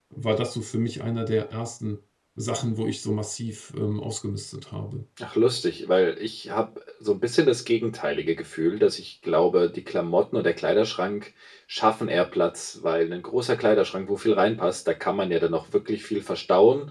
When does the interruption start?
none

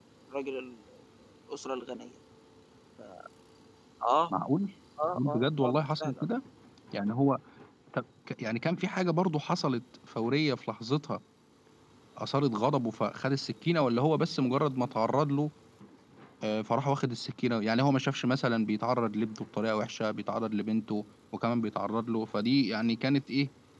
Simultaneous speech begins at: 5.0 s

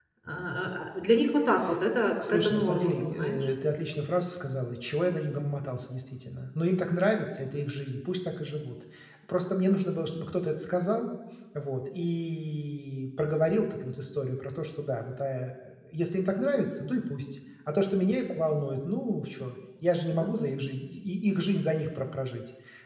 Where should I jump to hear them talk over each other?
2.2 s

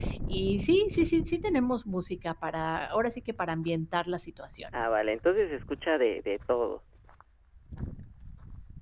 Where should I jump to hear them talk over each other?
none

